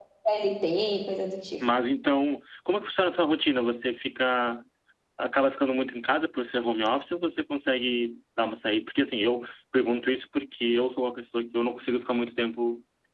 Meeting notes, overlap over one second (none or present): none